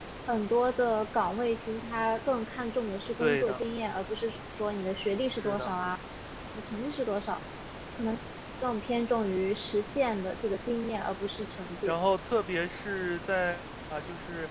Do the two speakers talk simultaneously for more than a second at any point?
No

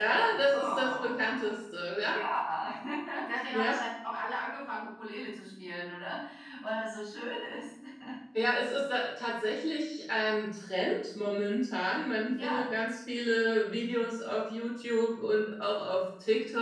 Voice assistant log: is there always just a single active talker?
No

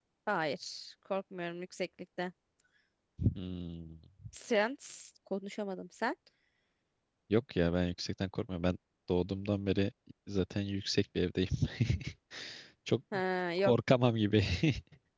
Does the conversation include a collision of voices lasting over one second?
No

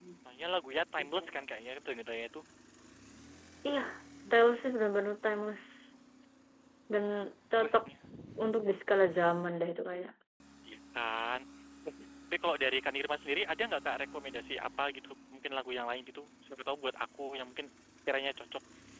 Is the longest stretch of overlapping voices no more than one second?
Yes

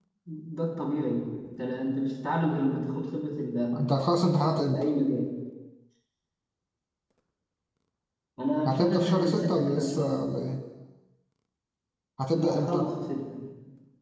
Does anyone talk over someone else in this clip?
Yes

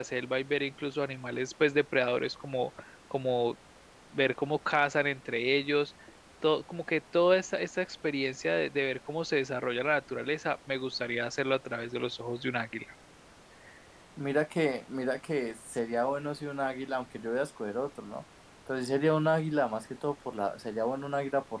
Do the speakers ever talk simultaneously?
No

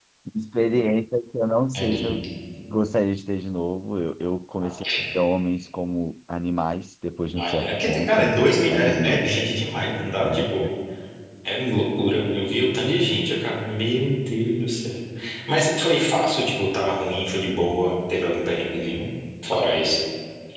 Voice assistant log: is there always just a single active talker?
No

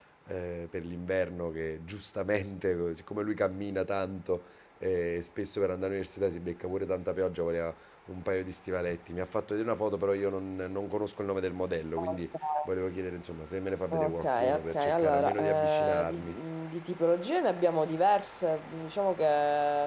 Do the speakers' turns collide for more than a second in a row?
Yes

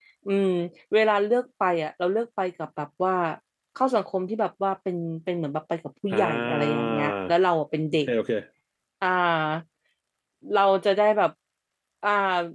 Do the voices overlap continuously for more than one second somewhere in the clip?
Yes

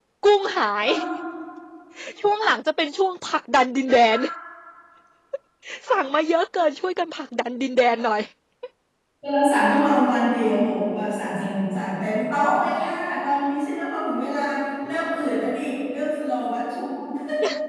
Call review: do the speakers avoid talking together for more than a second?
Yes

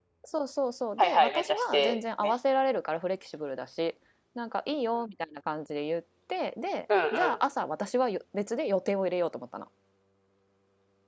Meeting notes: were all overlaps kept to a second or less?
No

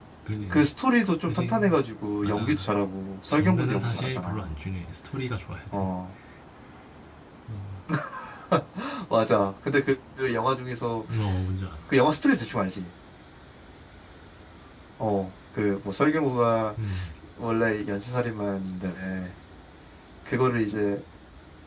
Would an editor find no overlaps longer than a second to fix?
No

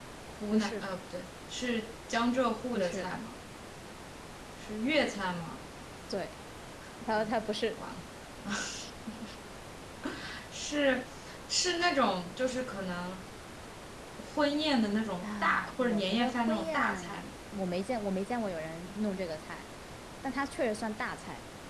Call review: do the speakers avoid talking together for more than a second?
No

